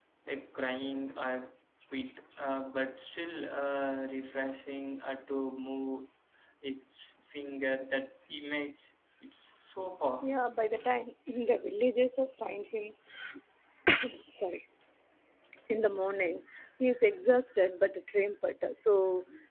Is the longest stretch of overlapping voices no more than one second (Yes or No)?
Yes